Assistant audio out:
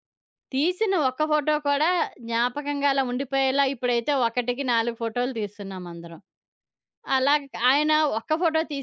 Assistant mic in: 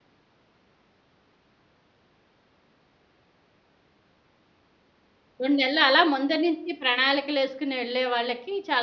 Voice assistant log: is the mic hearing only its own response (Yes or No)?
No